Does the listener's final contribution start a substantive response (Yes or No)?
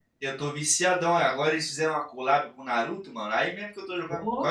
No